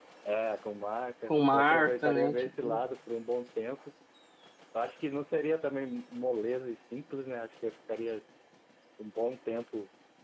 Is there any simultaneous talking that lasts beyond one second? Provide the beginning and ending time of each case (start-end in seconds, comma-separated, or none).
1.3-2.8